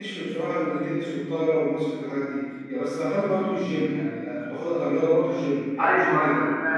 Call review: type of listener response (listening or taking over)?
taking over